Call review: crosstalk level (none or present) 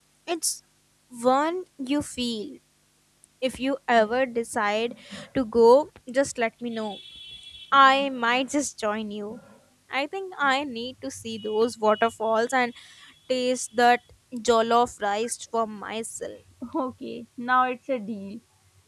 none